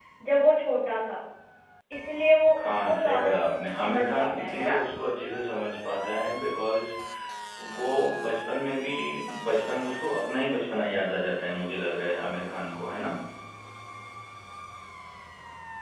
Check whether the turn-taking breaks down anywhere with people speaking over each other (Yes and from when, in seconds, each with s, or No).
Yes, from 2.6 s